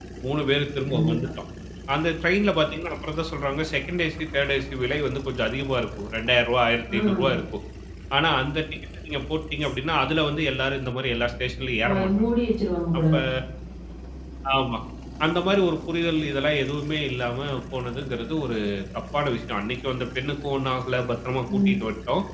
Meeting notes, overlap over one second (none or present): none